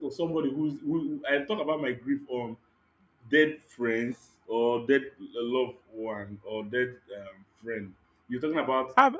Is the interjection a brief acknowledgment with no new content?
Yes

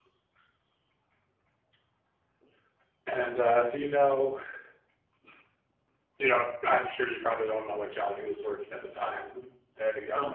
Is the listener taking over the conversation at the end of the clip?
Yes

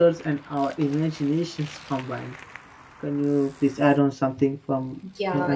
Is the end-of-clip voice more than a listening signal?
Yes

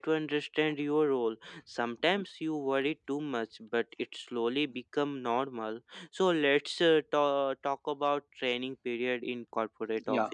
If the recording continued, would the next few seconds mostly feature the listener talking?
Yes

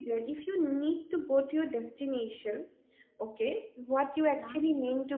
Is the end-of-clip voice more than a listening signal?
No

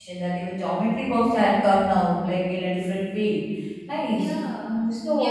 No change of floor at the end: No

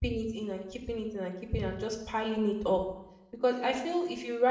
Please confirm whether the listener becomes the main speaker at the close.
No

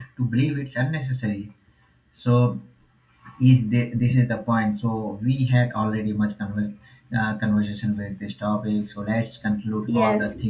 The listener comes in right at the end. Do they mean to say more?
No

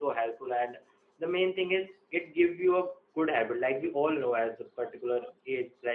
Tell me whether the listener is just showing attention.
Yes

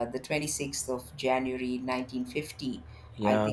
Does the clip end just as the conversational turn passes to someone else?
No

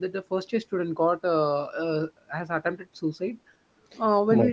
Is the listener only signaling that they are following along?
Yes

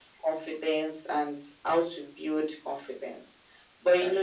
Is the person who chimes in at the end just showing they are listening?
Yes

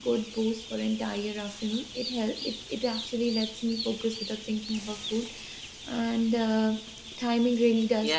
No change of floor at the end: No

